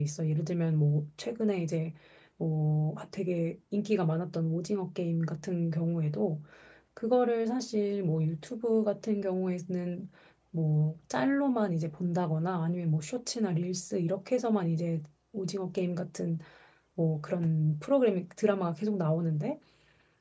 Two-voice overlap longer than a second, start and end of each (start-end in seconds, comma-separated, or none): none